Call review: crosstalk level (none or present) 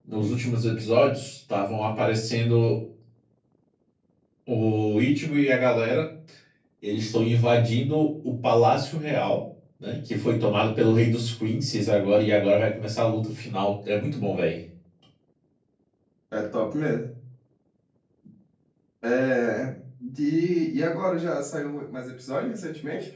none